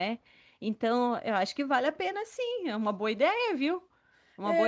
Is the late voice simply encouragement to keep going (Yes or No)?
No